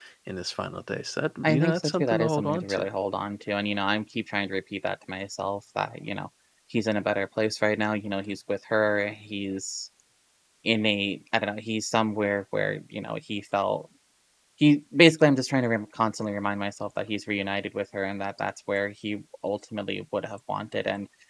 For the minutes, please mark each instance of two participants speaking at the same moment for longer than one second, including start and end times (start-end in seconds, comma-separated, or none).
1.4-2.9